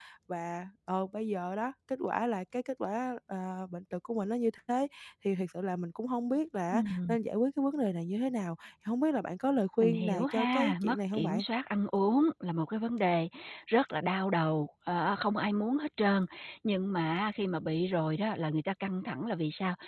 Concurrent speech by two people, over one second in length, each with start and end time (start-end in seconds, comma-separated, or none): 9.8-11.4